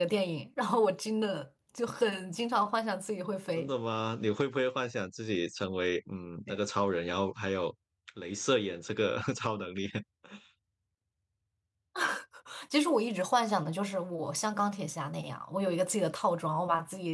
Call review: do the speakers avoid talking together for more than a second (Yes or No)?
Yes